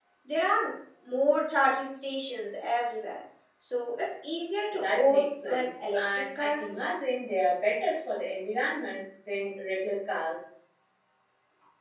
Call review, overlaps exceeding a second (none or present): present